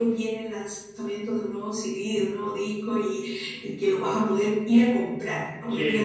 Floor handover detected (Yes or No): Yes